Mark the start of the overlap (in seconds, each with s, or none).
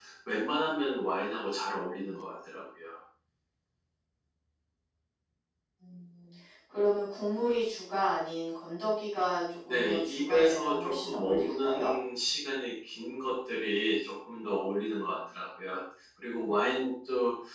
9.6 s